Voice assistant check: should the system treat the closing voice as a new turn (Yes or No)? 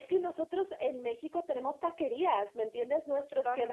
No